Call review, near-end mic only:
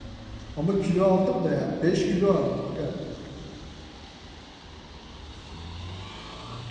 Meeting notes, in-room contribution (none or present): present